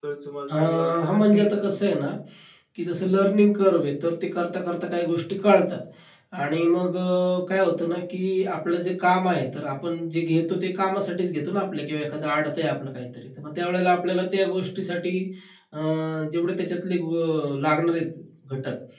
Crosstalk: present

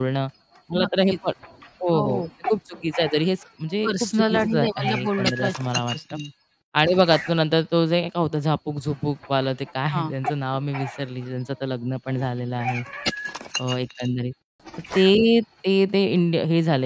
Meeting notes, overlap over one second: present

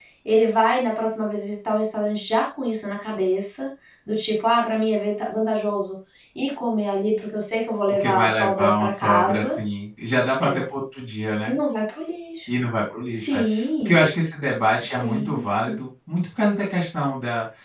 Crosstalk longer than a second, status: present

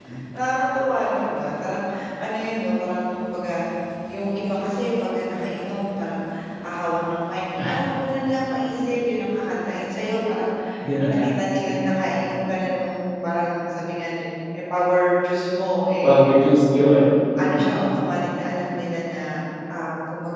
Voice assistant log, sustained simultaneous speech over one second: none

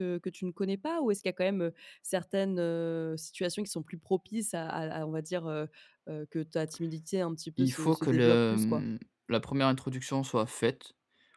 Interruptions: present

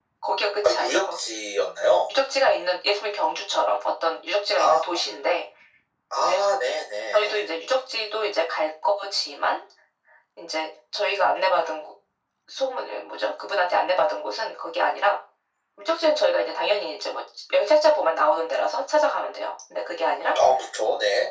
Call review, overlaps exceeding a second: none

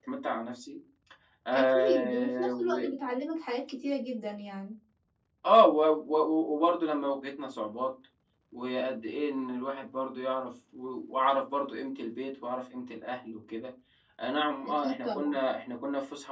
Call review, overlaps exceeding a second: present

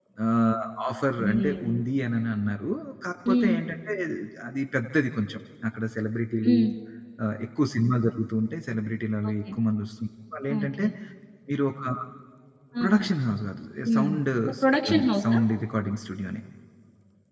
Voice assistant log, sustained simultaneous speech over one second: present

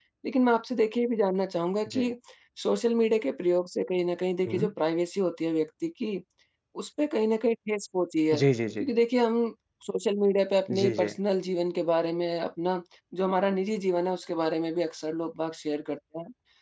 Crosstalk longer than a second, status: none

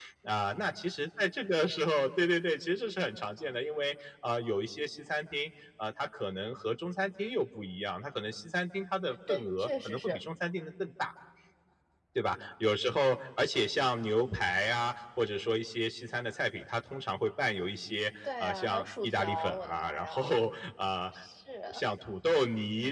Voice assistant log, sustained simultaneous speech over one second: present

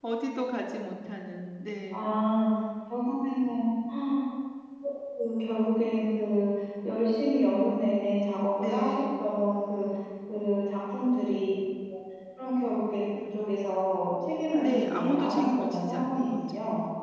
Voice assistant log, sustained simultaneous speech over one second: present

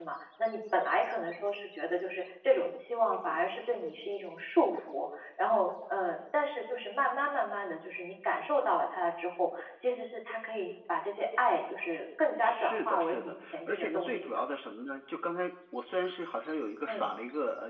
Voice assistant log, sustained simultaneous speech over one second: present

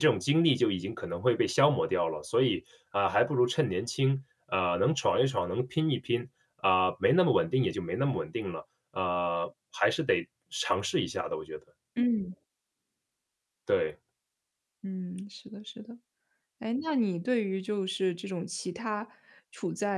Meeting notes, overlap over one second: none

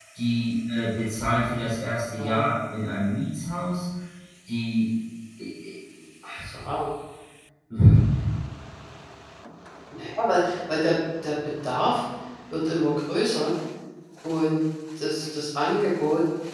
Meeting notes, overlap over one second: none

